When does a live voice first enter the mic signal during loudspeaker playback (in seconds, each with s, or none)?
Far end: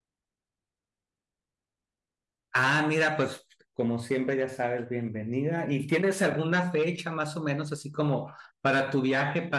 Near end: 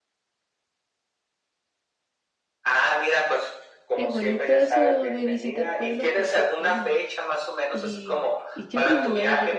4.0 s